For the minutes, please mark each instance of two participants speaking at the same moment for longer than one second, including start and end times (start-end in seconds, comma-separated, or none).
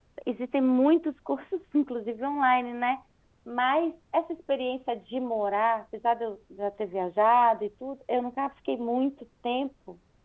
none